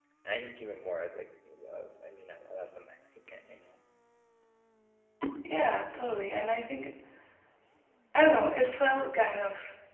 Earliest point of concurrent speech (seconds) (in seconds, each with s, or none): none